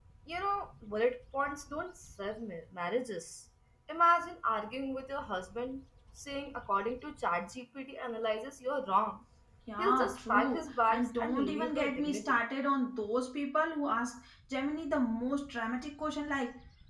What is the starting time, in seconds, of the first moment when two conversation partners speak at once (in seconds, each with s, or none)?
9.8 s